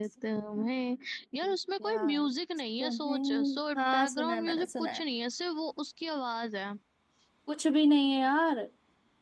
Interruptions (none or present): present